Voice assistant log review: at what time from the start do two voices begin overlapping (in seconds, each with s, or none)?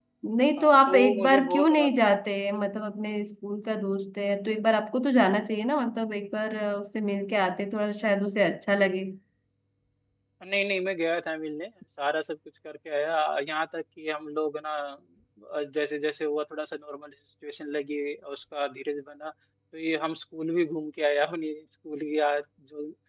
0.6 s